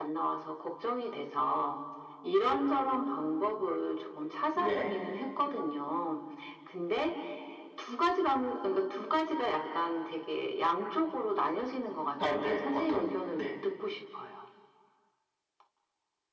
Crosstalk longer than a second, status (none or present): present